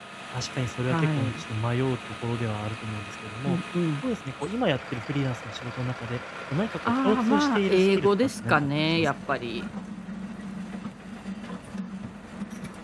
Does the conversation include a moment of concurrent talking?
Yes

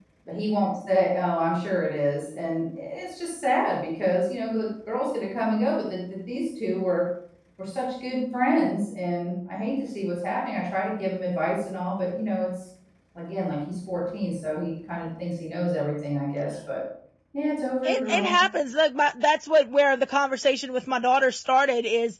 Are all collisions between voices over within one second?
Yes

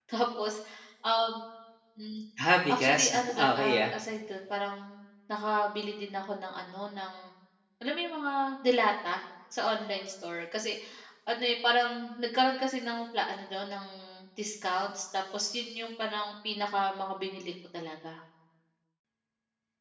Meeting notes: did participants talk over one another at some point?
Yes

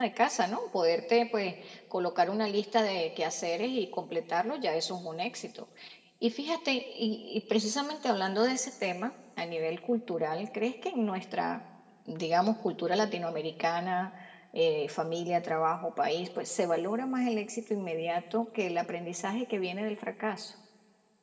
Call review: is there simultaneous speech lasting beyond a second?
No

